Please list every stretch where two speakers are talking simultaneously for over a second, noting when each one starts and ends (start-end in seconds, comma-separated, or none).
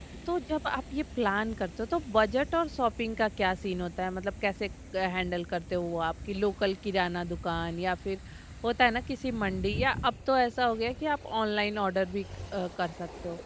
none